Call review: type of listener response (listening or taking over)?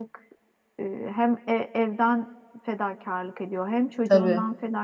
listening